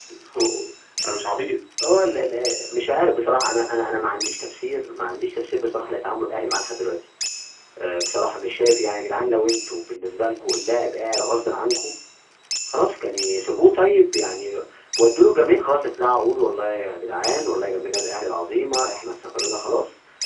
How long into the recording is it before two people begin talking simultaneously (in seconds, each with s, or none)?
none